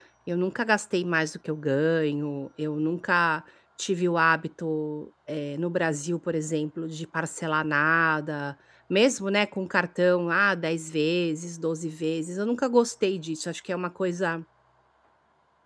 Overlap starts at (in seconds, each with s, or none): none